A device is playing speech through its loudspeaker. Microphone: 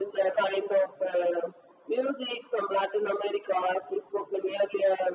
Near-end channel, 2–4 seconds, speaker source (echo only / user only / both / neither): echo only